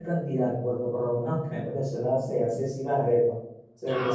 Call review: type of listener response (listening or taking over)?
listening